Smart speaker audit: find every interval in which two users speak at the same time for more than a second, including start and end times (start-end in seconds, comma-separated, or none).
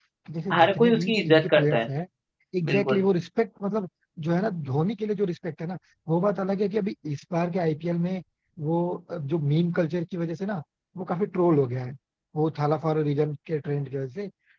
0.5-1.8